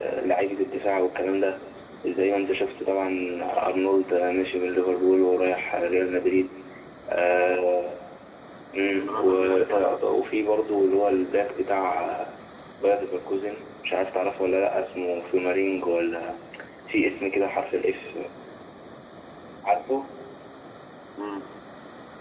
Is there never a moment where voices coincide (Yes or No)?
No